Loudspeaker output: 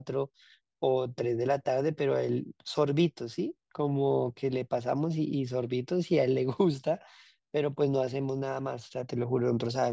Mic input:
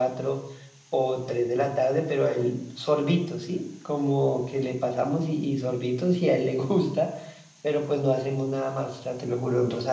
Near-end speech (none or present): none